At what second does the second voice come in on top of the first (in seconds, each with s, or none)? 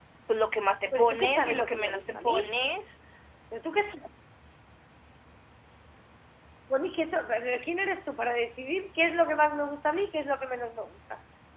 0.9 s